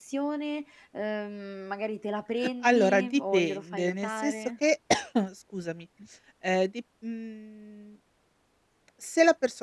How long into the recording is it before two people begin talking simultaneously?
2.6 s

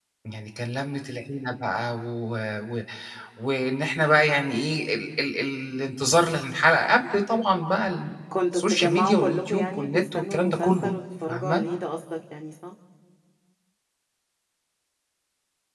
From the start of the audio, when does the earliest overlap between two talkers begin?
8.3 s

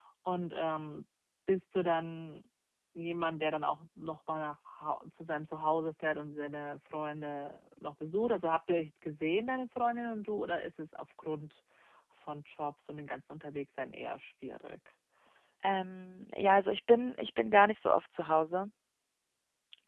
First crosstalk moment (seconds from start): none

